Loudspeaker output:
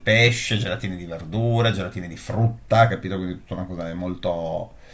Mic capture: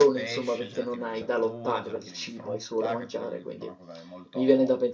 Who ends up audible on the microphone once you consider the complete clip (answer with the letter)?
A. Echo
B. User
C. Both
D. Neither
C